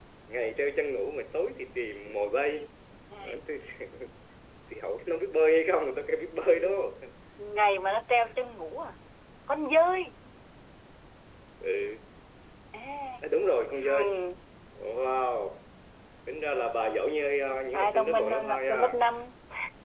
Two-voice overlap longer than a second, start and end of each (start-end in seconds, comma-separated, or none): 17.7-19.0